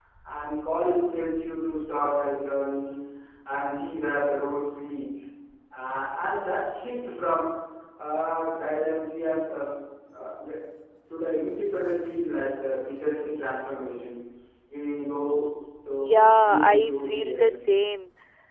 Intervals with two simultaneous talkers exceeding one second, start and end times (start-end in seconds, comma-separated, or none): 16.0-17.5